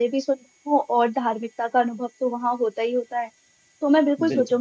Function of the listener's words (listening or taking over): listening